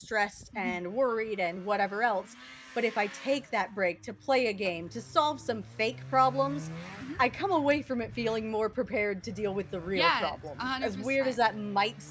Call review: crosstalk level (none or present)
present